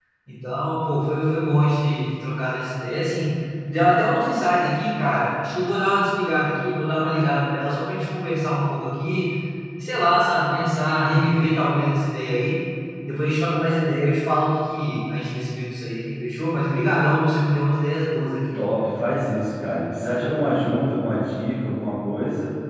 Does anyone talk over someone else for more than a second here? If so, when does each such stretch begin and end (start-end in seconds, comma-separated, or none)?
none